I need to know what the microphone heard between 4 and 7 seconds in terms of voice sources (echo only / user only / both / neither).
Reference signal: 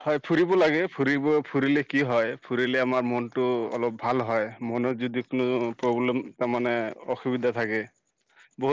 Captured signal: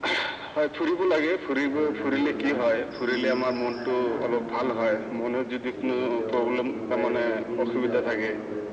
both